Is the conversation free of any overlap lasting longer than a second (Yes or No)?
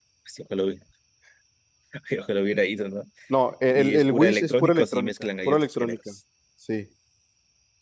No